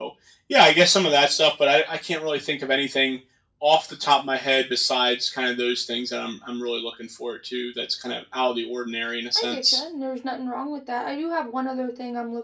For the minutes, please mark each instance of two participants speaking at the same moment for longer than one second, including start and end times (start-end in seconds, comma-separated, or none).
none